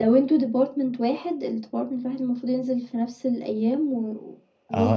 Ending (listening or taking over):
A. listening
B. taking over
B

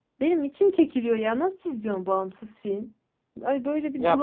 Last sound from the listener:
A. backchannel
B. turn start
B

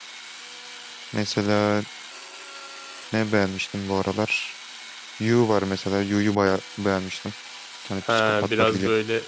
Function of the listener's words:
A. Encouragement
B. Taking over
B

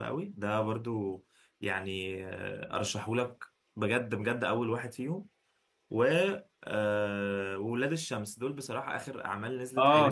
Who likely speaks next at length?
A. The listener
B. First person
A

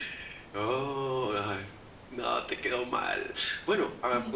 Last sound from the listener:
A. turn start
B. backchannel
B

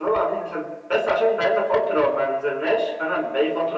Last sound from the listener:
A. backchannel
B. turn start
A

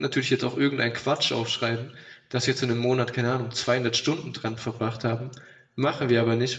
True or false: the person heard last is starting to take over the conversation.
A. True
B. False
B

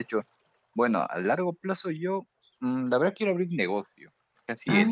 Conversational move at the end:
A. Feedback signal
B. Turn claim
A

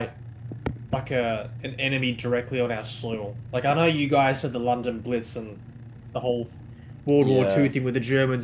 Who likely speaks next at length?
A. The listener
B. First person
B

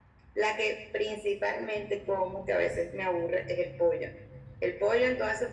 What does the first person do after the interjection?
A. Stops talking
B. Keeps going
B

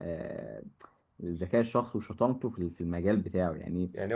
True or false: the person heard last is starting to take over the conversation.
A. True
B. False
A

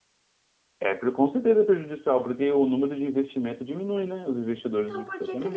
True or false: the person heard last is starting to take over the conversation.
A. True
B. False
A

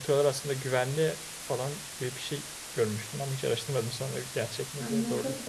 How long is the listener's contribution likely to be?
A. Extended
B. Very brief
A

